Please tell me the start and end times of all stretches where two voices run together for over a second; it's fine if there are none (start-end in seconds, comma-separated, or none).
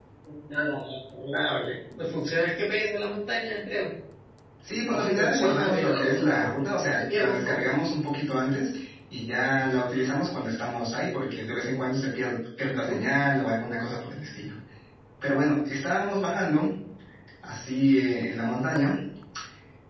4.9-7.6